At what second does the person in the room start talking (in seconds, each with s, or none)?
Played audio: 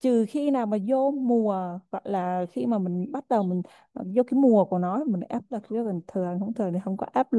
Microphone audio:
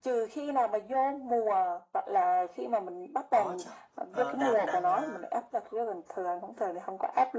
3.3 s